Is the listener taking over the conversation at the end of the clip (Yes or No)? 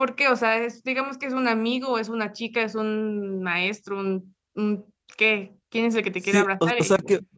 Yes